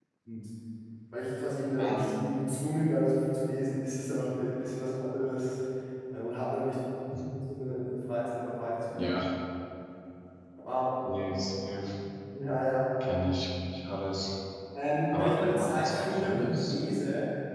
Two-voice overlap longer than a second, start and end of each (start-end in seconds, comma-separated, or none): 15.1-16.7